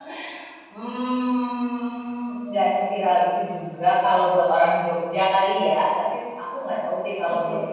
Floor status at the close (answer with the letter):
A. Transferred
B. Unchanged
B